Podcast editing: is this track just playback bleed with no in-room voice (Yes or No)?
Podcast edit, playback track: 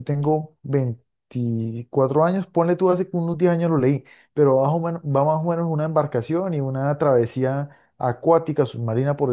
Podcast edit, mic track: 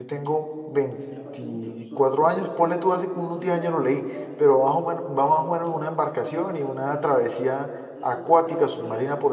No